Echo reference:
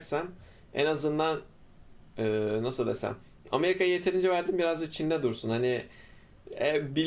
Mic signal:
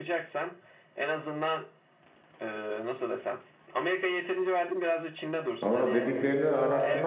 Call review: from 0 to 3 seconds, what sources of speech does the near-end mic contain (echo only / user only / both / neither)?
echo only